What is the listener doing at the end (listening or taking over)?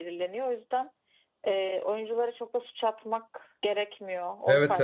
taking over